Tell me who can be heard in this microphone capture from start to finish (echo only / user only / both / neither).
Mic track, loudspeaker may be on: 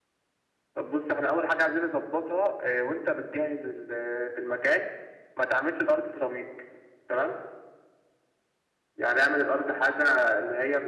echo only